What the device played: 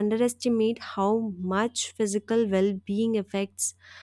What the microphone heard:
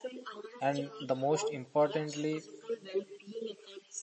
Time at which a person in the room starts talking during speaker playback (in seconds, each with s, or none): 0.6 s